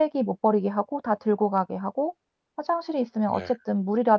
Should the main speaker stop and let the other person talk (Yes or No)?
No